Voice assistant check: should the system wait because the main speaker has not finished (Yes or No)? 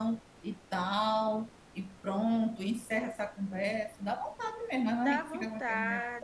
No